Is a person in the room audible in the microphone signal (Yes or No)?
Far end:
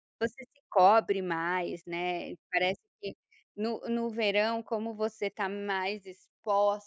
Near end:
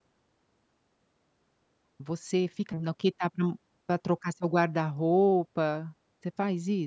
Yes